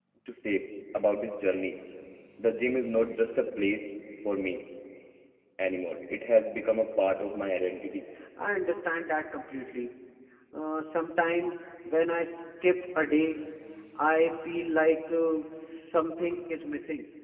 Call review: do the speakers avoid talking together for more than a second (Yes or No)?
Yes